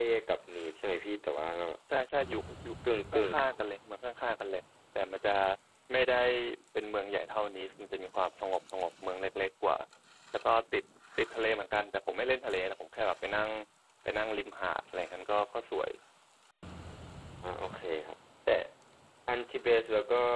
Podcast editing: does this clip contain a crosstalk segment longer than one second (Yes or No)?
No